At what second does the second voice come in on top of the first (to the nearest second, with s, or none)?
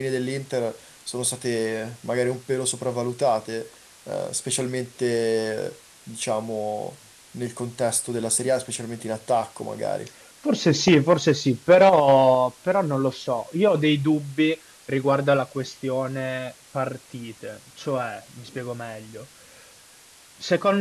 none